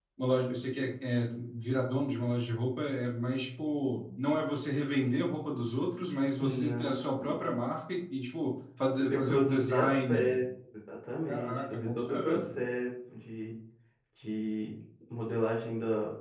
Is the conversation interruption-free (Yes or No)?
No